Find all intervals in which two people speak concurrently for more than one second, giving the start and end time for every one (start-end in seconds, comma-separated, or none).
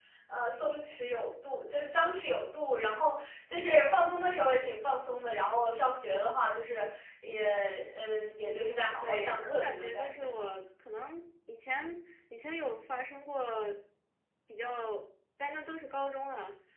9.0-10.5